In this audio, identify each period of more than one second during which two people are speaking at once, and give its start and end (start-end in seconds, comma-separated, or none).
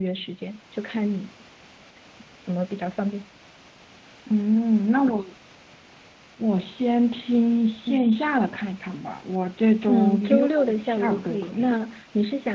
9.9-11.7